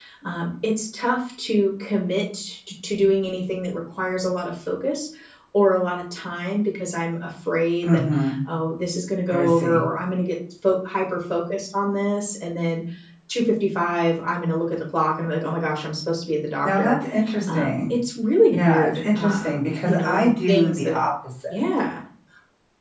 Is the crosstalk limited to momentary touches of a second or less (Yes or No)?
No